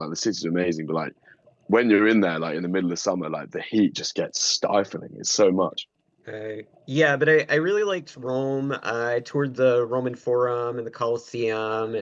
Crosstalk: none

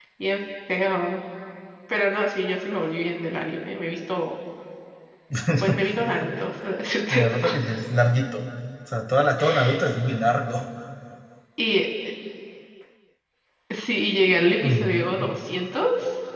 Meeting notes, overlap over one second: none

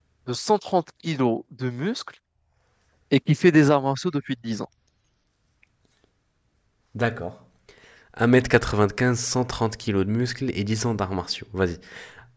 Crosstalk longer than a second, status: none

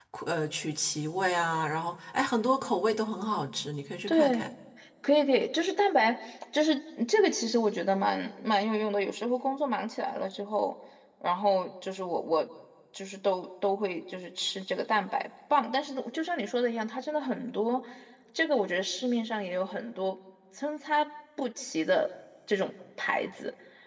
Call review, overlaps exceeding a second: none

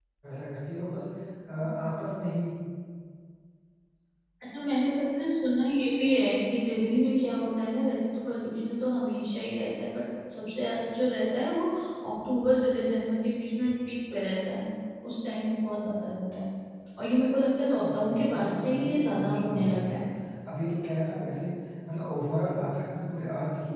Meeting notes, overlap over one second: present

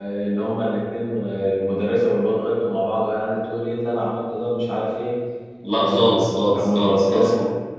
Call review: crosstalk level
present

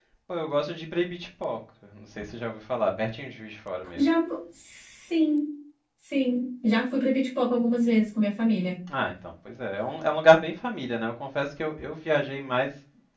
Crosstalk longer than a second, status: none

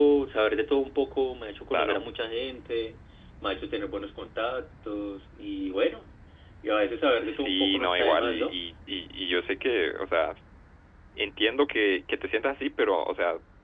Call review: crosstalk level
present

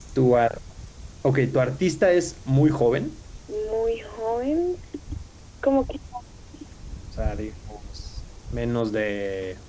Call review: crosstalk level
none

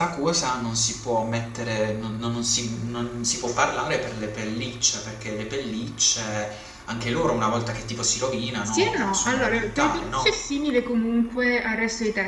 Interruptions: present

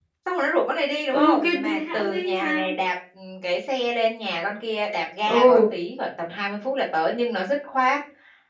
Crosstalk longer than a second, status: present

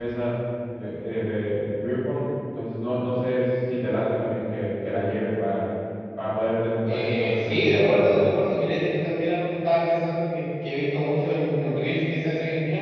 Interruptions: present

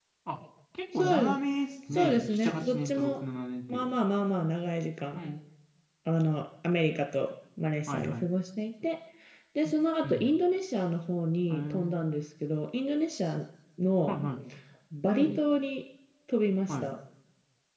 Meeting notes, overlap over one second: present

